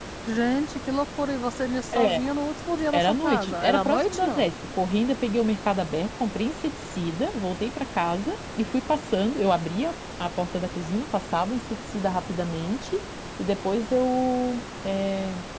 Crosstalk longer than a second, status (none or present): present